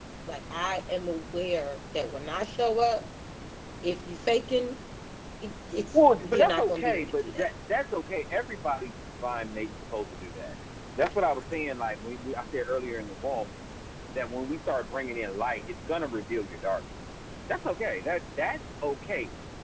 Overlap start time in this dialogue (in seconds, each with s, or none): 6.0 s